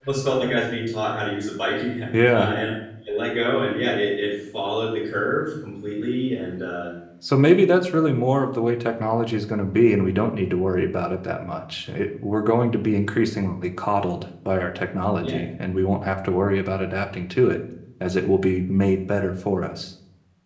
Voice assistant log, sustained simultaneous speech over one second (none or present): none